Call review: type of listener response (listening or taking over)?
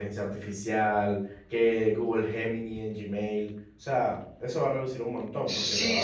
taking over